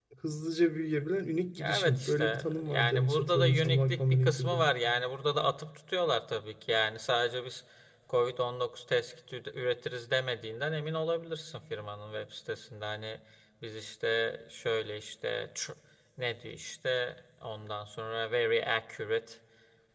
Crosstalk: present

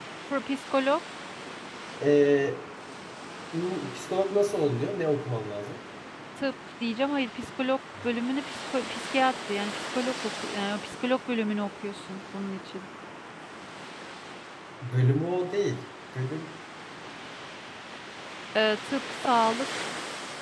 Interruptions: none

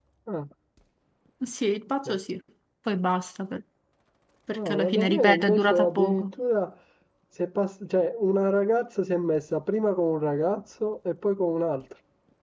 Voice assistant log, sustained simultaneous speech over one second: present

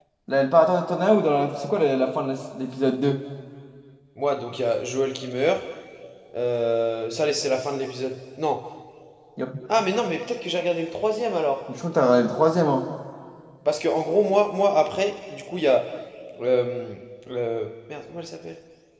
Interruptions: none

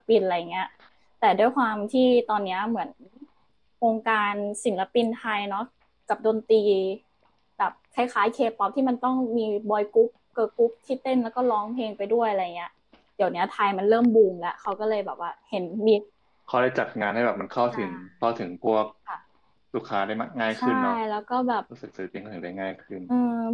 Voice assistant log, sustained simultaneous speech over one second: none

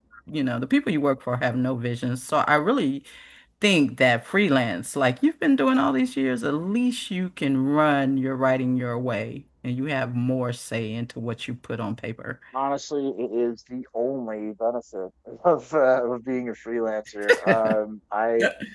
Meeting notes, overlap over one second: none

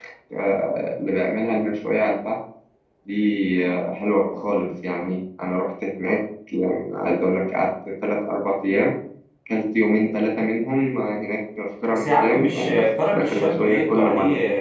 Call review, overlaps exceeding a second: present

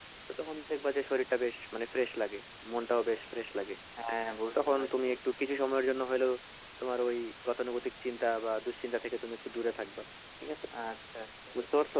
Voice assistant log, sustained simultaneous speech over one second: none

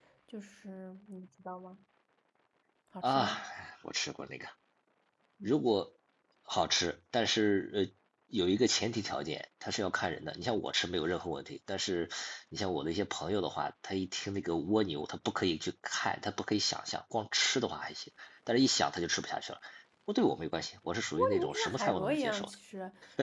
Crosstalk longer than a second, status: present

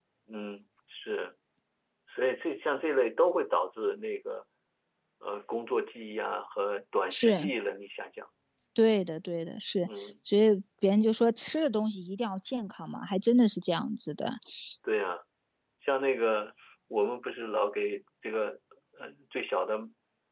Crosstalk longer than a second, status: none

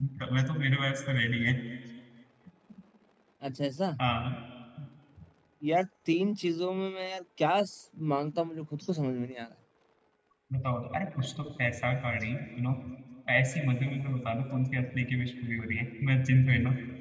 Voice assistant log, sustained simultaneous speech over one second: none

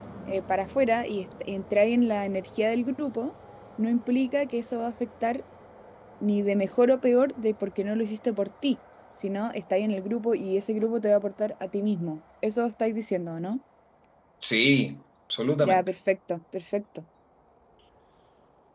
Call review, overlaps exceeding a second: none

